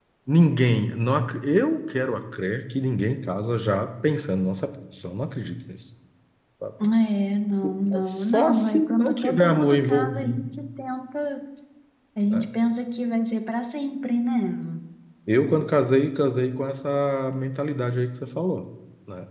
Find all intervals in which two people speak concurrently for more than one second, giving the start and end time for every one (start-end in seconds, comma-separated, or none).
8.0-10.4